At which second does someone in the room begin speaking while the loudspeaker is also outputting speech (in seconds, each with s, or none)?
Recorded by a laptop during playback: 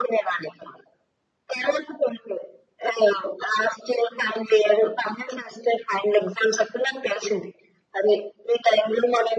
none